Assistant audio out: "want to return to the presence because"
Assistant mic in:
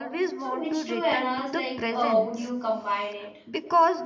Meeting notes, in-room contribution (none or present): present